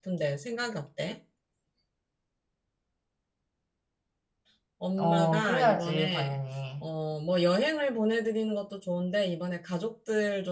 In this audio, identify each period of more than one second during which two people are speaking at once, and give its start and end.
5.0-6.4

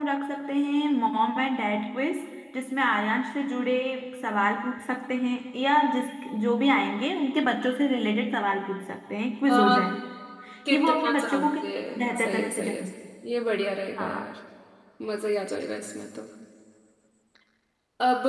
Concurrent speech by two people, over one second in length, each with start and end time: 10.7-12.7

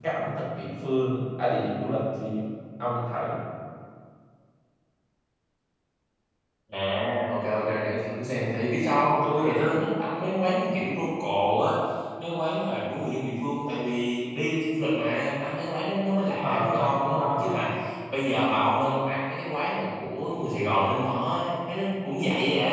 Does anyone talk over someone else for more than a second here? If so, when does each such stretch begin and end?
16.4-17.6

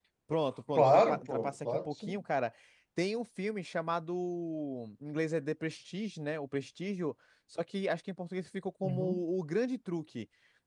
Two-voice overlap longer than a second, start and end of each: 0.8-2.2

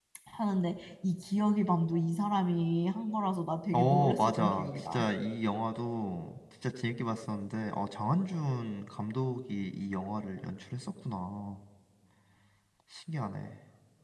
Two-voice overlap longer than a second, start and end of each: 3.7-5.0

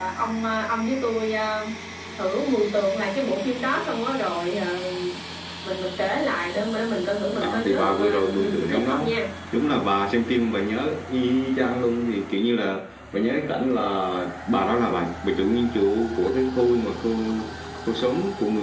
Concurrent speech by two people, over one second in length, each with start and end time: 7.4-9.1

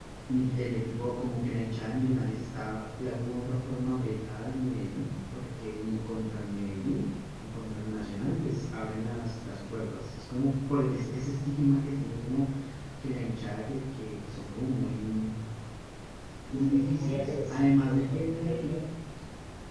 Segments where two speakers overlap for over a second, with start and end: 16.5-18.8

